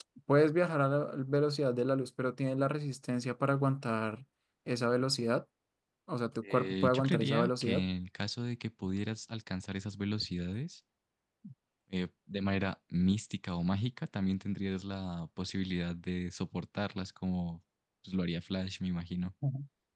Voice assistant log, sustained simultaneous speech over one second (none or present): present